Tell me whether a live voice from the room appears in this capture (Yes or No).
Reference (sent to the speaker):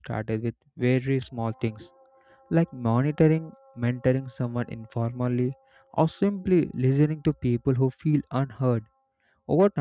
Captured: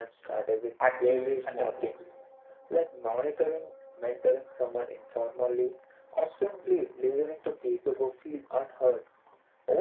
Yes